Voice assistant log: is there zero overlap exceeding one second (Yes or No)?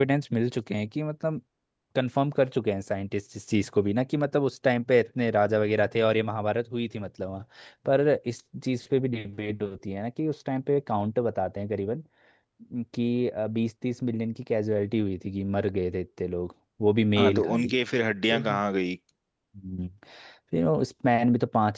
Yes